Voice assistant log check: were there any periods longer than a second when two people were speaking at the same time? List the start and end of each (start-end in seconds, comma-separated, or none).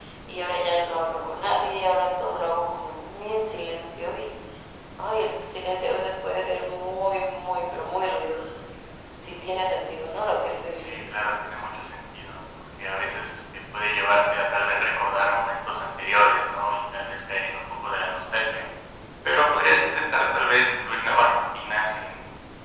none